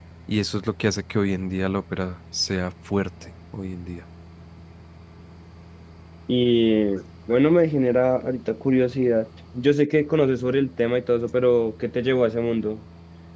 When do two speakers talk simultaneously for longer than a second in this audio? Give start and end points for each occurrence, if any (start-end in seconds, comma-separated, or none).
none